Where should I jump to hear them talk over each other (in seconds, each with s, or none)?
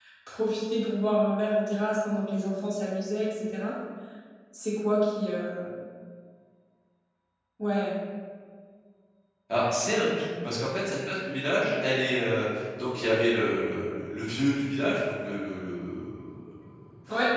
none